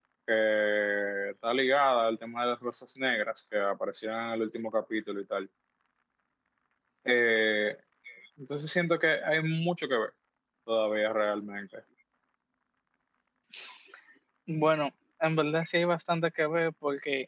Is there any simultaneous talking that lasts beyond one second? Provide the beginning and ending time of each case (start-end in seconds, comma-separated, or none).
none